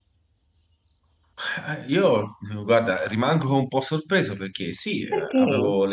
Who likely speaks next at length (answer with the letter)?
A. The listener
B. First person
B